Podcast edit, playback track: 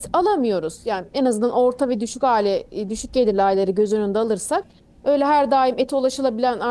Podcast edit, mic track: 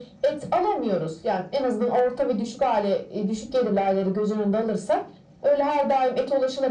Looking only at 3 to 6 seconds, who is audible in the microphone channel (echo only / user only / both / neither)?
echo only